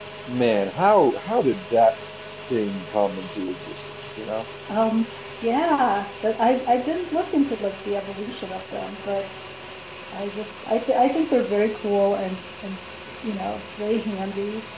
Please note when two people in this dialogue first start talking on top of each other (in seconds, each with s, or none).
none